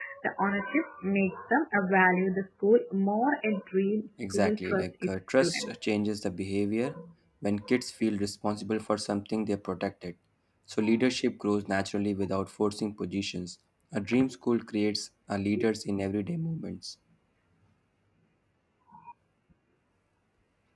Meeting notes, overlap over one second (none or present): present